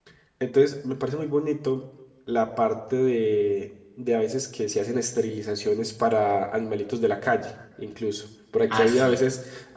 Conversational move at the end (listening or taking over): listening